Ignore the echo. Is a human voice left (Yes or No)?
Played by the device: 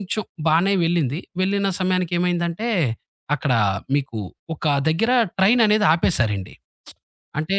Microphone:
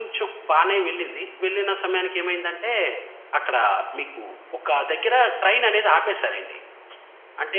No